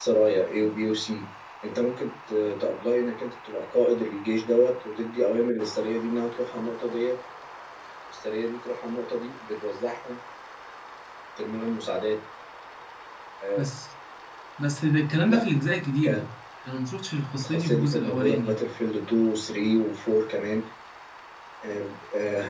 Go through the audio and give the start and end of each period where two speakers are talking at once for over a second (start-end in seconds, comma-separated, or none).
17.3-18.6